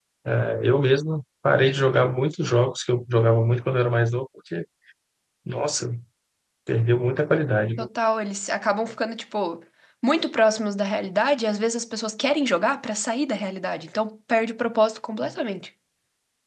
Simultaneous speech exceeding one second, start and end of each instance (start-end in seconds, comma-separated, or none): none